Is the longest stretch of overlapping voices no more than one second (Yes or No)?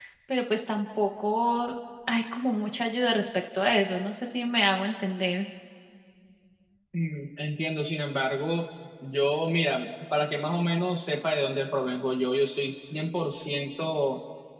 Yes